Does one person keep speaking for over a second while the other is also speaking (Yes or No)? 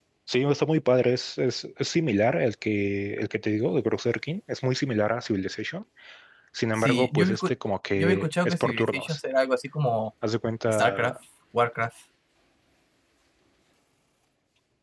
Yes